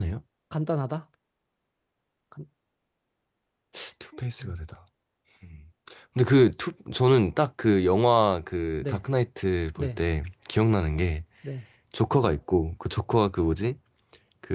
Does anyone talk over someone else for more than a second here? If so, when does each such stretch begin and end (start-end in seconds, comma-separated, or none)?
none